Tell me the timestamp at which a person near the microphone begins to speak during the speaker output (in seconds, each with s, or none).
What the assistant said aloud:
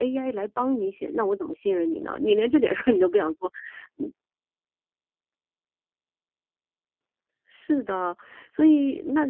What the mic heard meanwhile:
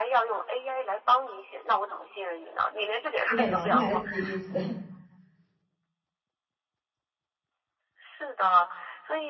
3.3 s